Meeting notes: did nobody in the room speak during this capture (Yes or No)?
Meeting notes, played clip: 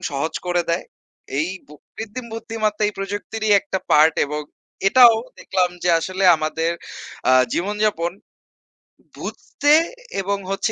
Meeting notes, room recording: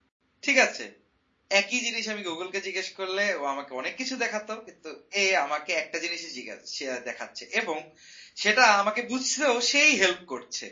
No